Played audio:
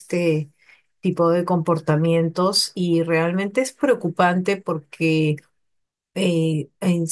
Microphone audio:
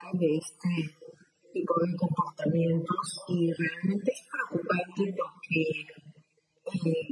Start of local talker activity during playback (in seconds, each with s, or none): none